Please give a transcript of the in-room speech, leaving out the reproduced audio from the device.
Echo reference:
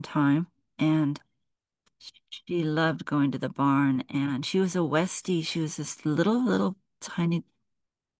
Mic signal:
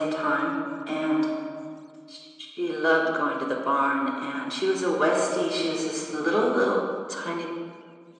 none

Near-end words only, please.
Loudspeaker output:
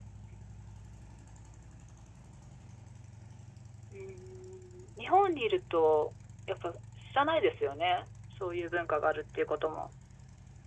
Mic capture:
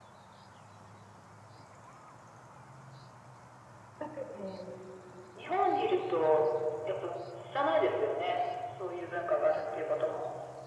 だけど、

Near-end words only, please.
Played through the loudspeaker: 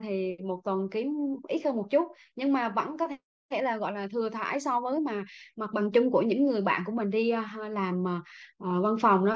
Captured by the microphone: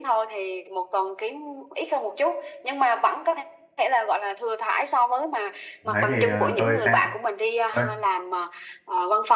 đấy thì ờ, tôi xem ơi,

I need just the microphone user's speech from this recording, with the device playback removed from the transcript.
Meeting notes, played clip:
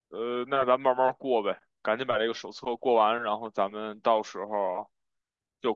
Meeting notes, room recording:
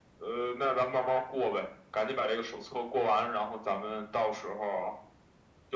none

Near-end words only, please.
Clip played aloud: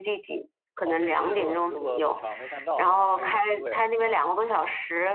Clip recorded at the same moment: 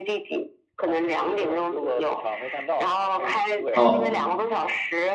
哦

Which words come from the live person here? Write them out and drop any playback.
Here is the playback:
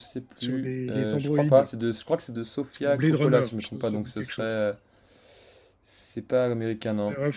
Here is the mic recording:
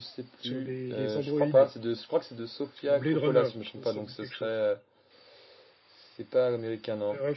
none

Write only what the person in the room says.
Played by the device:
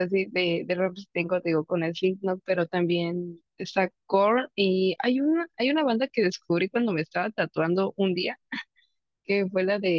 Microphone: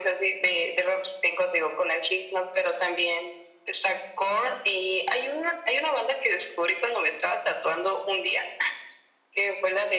none

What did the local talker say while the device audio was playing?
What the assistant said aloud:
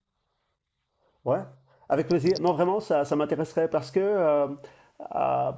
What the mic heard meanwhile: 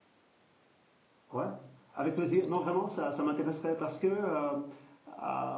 none

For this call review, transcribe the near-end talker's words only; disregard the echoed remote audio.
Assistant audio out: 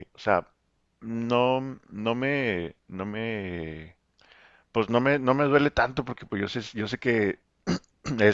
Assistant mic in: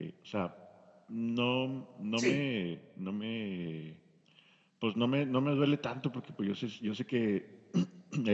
sí,

